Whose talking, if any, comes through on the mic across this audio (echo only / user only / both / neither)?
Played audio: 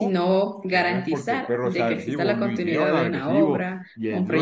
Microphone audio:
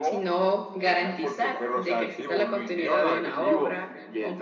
echo only